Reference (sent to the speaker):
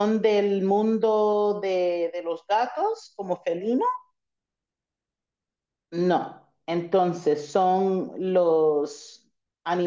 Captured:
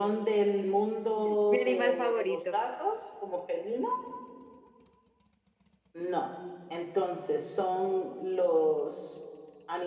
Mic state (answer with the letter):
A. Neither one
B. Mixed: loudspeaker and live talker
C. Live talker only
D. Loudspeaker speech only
B